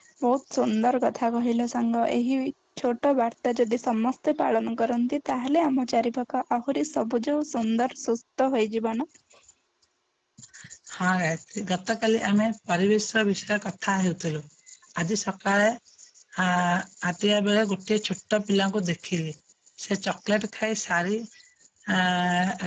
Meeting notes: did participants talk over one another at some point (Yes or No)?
No